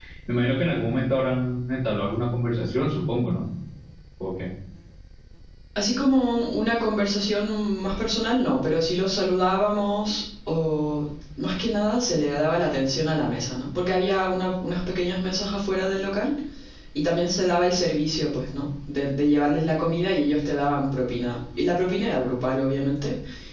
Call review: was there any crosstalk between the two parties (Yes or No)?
No